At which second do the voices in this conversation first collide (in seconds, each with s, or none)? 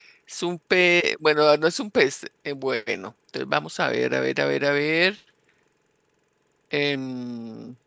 none